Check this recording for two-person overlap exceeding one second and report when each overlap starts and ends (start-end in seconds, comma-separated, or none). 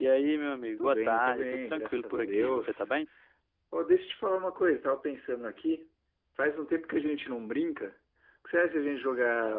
0.8-2.8